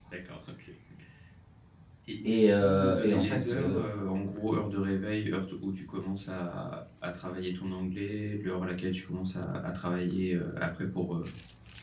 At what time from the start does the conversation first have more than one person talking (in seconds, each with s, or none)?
2.2 s